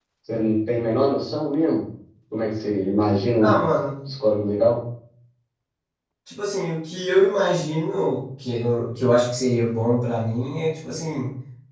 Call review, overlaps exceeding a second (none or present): none